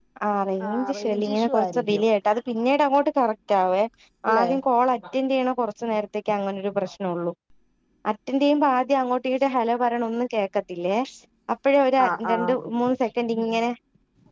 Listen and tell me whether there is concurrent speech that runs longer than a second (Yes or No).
Yes